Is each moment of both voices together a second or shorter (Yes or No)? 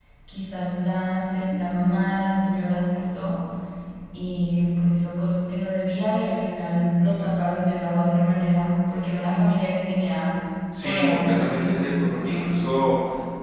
No